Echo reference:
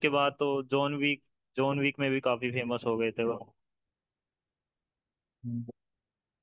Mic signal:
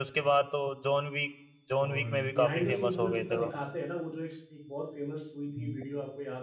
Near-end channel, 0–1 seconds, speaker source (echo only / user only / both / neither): echo only